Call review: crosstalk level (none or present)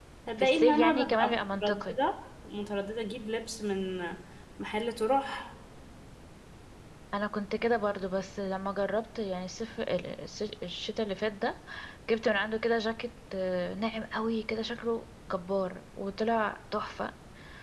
present